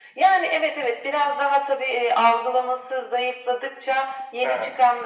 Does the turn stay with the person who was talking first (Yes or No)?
Yes